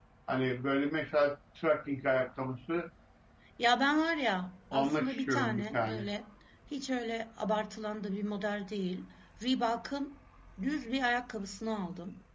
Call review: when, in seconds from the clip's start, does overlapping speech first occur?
4.7 s

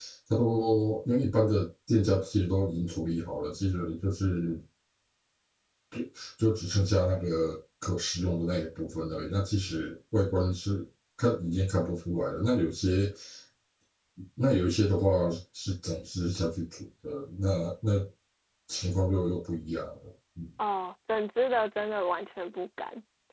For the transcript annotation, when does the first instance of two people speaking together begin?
none

